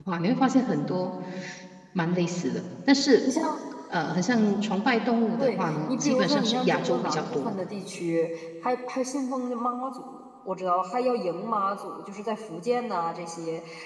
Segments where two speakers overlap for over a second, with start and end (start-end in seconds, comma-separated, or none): 5.4-7.6